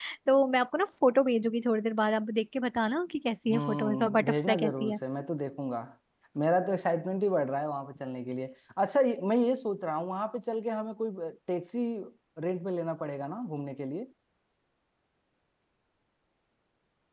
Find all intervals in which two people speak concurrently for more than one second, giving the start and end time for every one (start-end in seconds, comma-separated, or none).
3.5-5.0